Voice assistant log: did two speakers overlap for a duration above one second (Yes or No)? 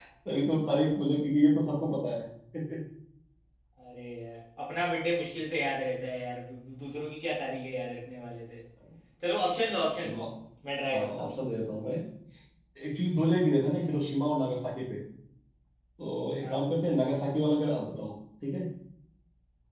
No